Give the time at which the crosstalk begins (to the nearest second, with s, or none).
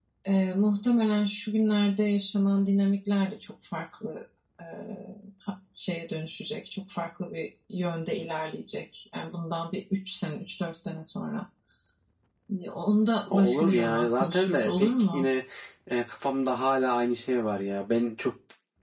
13 s